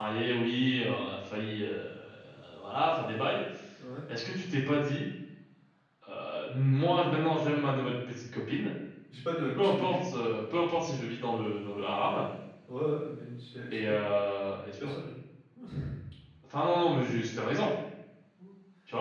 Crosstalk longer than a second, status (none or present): none